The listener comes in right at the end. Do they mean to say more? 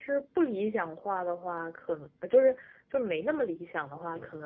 No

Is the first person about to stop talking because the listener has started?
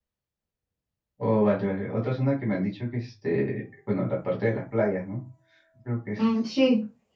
Yes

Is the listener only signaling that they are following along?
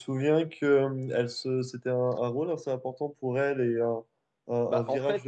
No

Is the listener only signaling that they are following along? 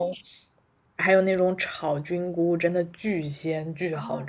No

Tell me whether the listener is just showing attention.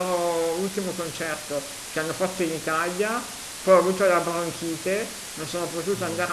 Yes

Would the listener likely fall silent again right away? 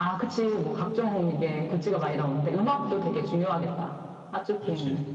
No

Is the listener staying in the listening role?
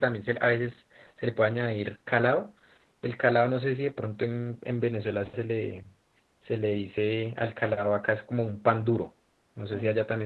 Yes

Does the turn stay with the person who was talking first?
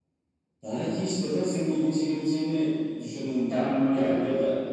Yes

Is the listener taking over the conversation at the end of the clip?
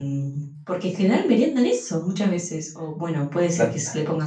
No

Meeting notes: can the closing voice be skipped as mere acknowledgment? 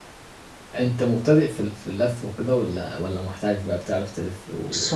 No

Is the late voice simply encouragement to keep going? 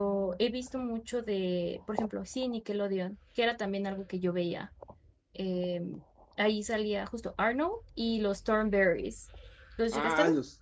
No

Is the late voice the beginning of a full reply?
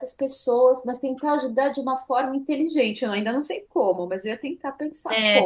Yes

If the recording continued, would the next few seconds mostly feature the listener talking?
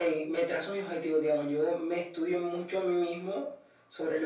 No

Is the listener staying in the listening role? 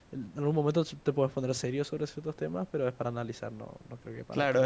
No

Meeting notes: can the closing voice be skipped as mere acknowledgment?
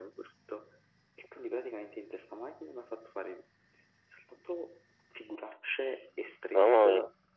Yes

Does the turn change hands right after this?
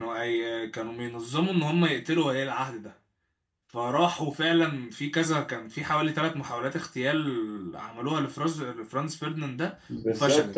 Yes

